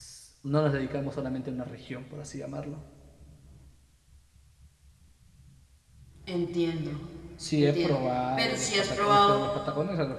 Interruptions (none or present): present